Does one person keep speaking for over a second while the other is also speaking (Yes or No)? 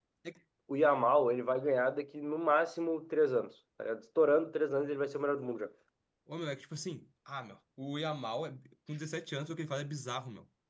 No